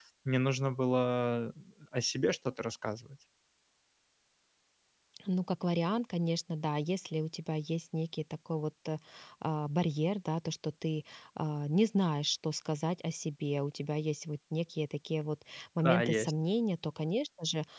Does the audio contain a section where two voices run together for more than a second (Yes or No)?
No